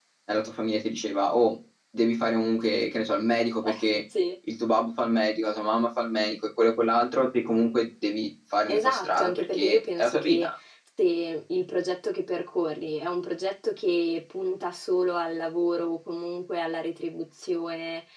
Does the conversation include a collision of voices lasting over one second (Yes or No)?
Yes